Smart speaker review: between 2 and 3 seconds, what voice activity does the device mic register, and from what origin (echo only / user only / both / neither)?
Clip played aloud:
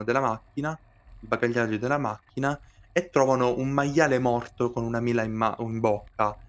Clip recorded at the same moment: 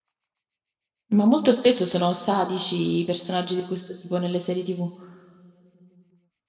user only